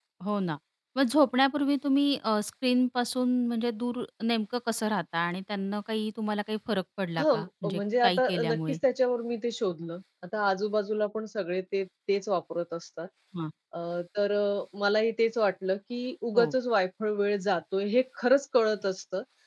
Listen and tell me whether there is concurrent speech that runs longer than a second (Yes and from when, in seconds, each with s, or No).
Yes, from 7.2 s